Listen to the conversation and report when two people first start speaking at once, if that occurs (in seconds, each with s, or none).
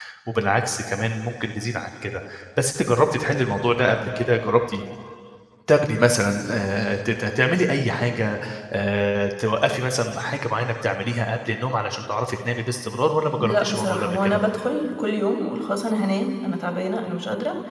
13.2 s